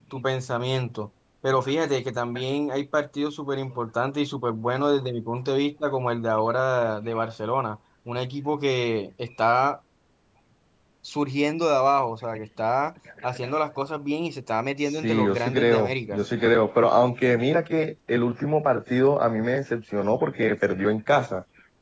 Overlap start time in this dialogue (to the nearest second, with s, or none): 15 s